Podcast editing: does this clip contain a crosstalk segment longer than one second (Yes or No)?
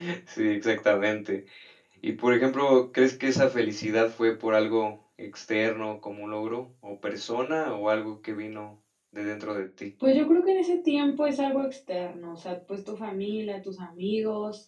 No